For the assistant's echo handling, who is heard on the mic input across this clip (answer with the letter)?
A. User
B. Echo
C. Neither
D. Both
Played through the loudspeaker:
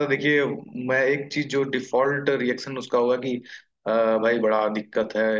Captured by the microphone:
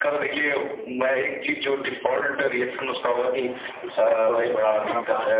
D